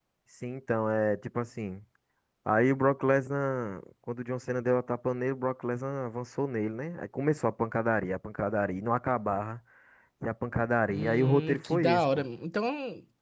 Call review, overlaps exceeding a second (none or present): present